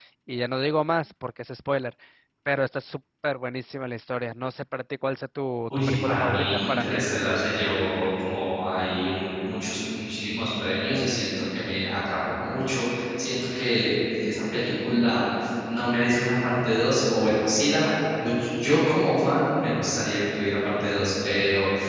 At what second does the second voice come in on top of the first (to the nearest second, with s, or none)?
6 s